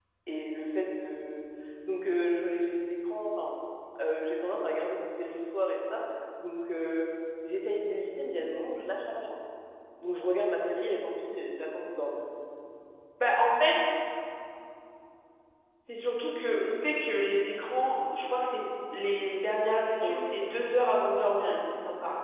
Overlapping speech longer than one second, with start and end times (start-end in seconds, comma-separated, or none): none